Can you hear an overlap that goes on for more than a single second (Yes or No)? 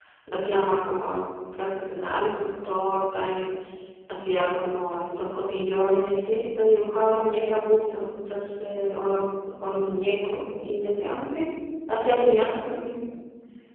No